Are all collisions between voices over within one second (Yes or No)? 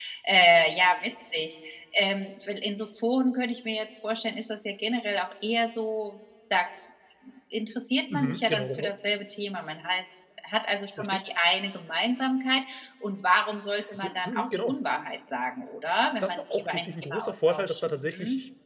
No